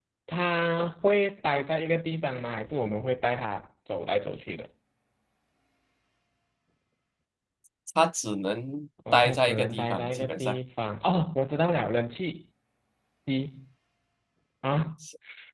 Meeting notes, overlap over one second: present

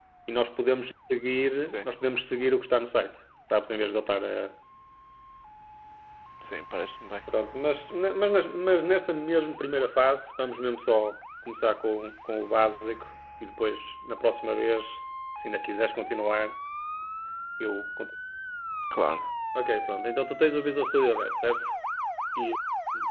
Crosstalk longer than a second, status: none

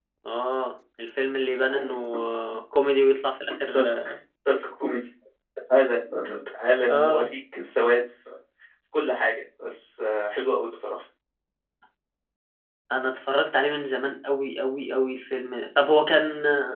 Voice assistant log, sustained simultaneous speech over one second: none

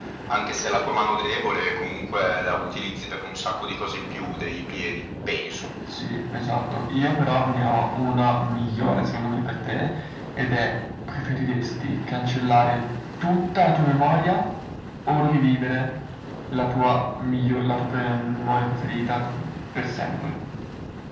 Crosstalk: none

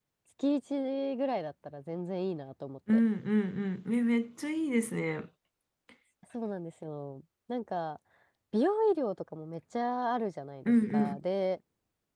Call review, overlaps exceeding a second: none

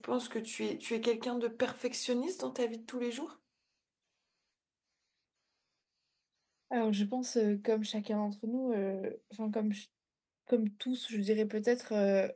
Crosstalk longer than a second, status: none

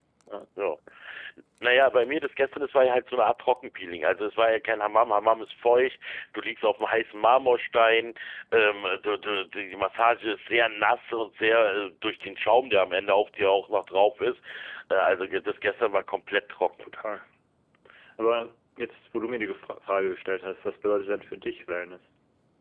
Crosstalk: none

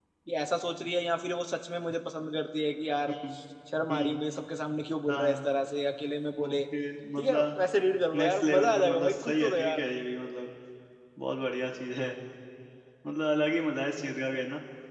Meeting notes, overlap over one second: present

